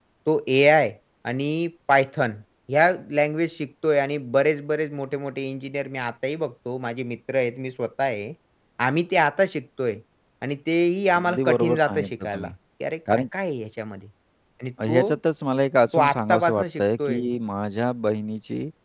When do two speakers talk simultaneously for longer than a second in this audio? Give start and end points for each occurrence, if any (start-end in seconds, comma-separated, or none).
11.1-12.5, 15.9-17.2